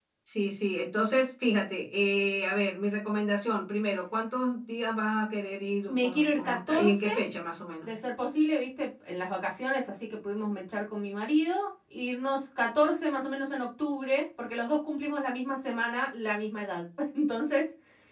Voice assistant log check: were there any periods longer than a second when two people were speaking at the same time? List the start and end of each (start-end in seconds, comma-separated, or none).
5.9-7.1